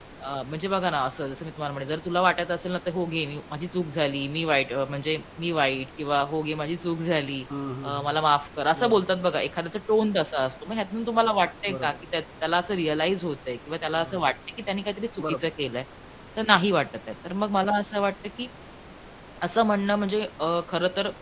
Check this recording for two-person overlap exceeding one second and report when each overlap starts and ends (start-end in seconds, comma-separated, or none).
none